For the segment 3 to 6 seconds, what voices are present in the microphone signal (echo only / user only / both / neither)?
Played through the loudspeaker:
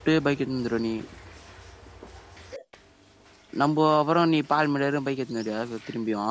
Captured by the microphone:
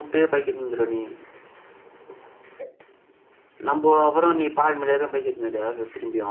echo only